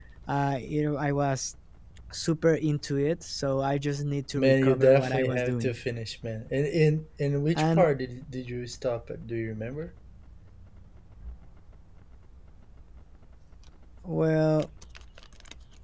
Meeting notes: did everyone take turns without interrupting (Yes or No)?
No